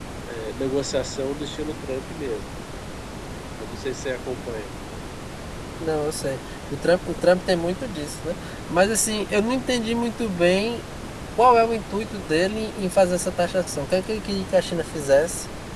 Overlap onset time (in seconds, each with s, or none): none